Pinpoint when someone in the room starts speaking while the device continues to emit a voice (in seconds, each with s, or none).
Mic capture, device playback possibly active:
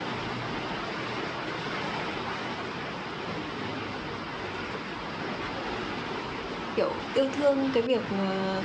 6.7 s